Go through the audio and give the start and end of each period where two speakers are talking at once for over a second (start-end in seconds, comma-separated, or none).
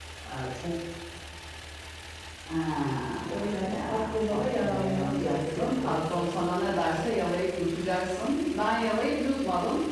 3.3-6.2